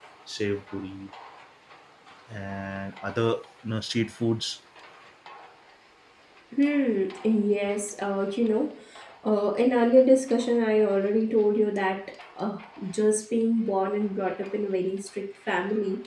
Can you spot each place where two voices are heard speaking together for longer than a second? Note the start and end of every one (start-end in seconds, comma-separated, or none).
none